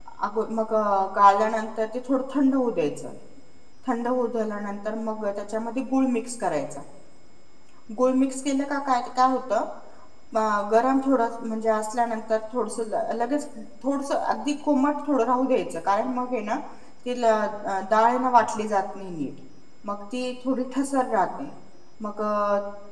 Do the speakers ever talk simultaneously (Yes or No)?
No